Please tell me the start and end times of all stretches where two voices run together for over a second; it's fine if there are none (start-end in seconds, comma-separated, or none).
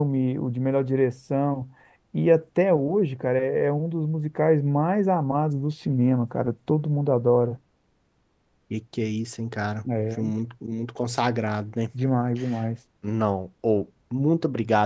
none